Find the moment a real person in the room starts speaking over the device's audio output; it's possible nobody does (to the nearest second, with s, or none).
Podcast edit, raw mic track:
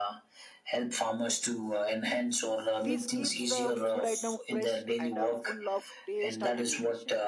3 s